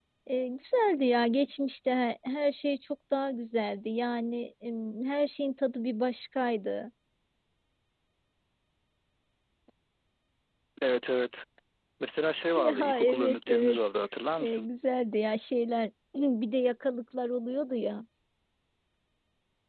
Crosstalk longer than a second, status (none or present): present